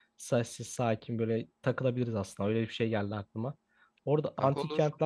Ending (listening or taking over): listening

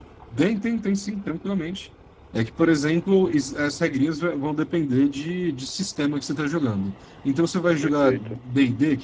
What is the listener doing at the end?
listening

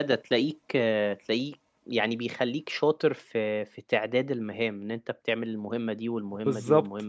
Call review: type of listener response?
taking over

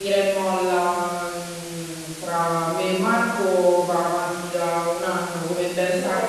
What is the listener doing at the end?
listening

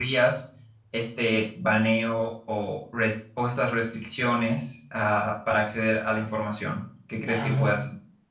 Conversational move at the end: taking over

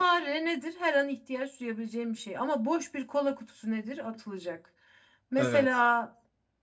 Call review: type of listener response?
listening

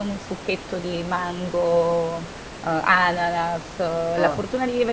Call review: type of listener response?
listening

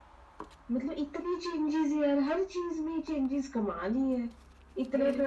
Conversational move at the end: listening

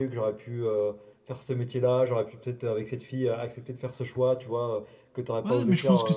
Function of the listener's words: taking over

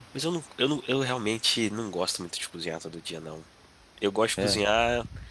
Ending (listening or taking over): listening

